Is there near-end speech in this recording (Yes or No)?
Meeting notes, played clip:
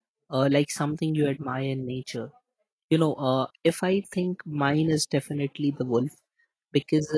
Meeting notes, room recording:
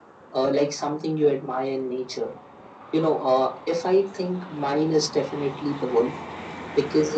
No